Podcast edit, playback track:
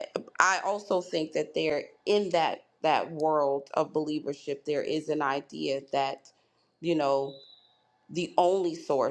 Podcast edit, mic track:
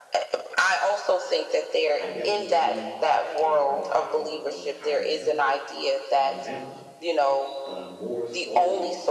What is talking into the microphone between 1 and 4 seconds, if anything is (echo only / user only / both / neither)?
both